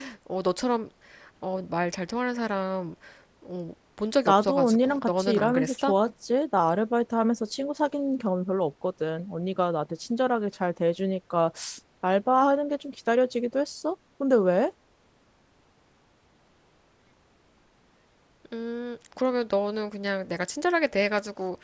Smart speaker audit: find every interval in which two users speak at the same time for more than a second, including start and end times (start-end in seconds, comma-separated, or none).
4.3-5.9